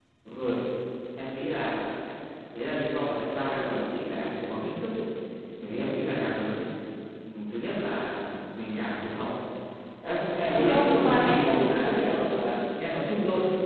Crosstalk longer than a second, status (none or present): present